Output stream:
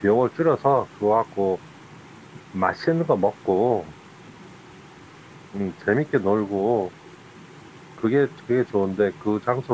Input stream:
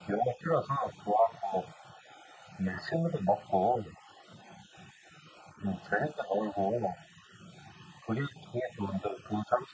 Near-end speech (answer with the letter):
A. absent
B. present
A